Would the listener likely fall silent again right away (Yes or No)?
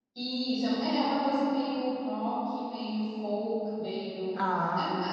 Yes